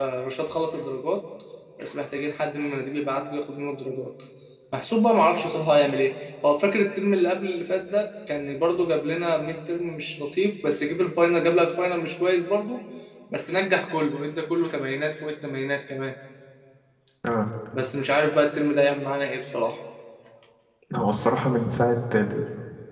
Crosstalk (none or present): none